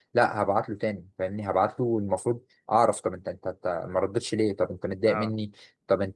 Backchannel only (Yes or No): Yes